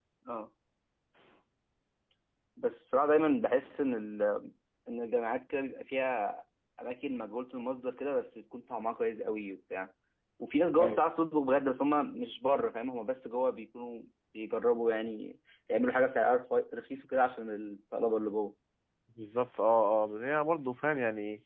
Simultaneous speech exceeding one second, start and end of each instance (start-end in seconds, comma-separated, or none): none